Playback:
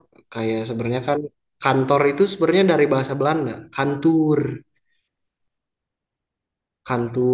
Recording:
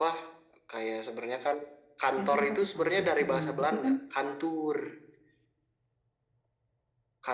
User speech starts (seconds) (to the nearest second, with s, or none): 2 s